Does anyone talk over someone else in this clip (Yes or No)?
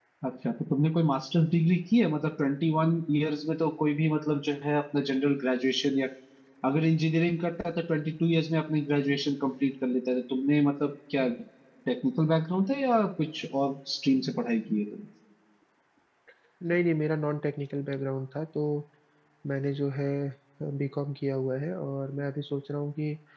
No